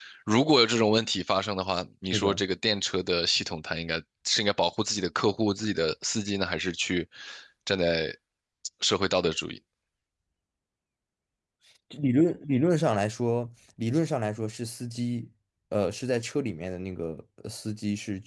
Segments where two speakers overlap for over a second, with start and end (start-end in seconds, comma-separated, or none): none